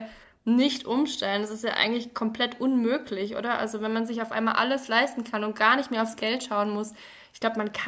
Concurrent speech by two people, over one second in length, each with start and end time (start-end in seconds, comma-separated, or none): none